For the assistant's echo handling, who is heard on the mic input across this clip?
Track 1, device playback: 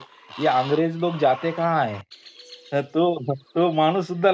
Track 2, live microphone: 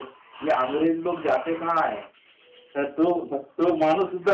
echo only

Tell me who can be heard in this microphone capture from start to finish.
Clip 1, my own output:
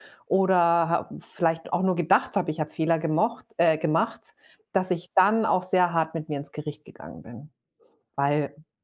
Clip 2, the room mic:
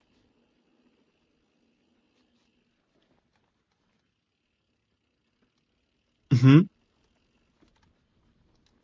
user only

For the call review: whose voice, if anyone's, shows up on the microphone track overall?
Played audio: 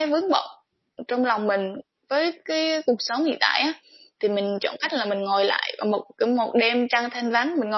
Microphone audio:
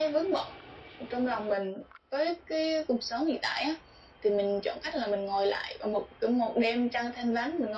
echo only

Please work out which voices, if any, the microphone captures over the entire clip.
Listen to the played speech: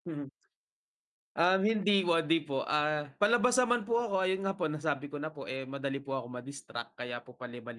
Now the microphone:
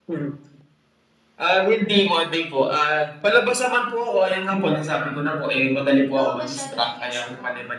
both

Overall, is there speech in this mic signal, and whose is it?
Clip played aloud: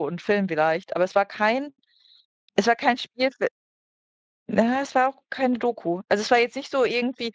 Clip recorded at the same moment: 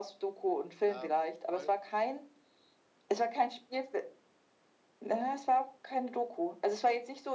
both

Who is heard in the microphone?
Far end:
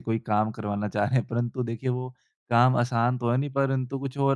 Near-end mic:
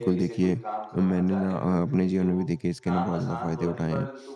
both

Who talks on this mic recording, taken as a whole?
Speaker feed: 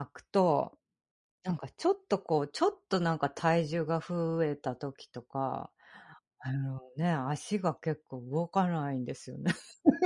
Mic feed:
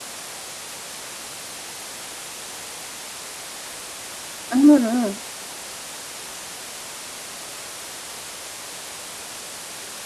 user only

